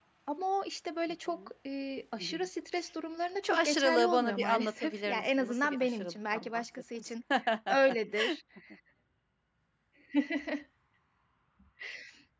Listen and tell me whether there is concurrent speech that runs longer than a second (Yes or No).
Yes